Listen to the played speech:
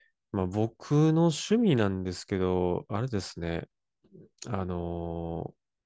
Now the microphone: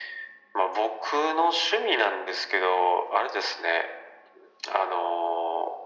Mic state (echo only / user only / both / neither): echo only